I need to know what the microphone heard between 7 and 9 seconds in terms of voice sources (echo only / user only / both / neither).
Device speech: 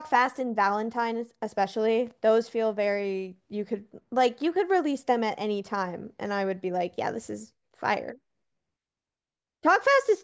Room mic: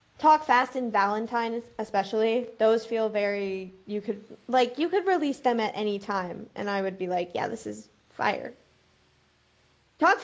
echo only